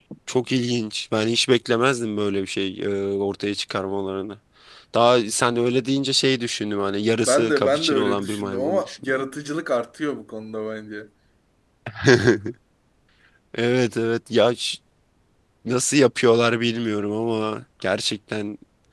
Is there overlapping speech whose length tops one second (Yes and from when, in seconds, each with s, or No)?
Yes, from 7.2 s